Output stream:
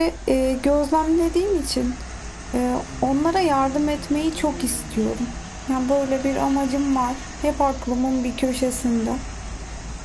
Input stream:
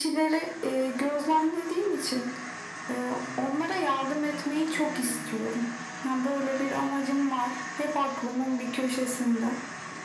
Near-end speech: none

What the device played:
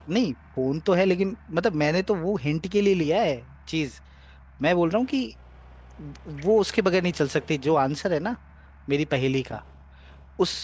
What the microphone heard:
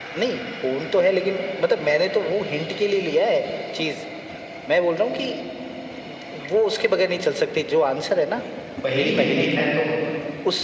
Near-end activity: present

